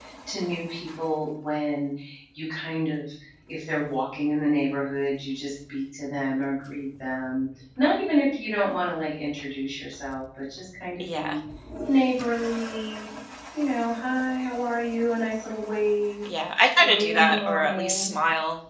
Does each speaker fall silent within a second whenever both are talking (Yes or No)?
No